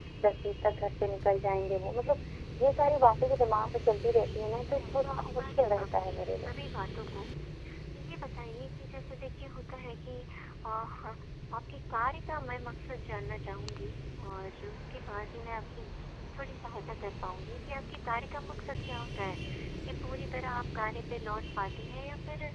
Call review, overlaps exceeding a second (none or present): present